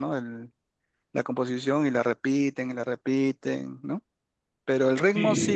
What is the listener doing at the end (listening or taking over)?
listening